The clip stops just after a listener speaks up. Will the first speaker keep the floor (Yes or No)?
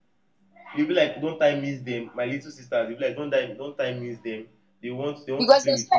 No